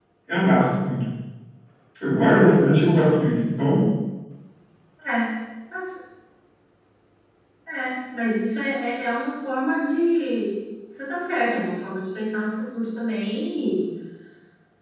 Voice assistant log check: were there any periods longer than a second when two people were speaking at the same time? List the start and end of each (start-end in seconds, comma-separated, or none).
none